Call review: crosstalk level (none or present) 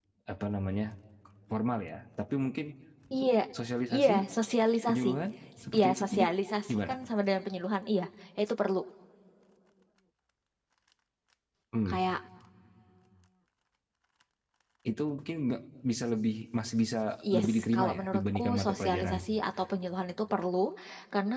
present